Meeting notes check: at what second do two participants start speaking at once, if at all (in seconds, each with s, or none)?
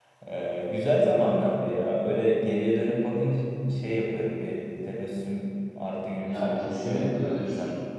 6.2 s